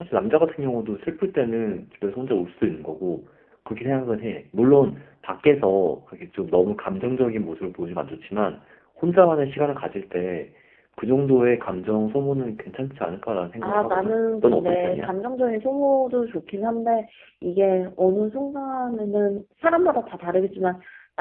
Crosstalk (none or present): present